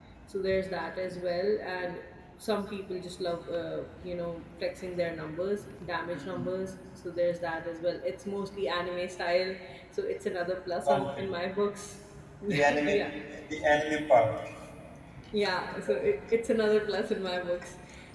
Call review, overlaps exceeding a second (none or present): none